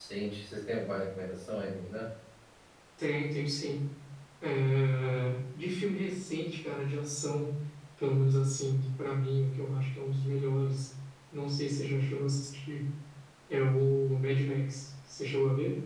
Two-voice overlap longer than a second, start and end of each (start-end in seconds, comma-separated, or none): none